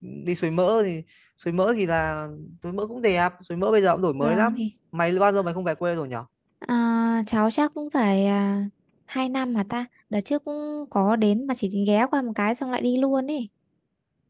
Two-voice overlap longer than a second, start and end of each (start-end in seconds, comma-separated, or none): none